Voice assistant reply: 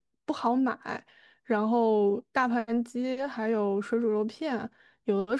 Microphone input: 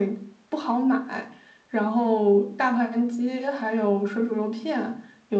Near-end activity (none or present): none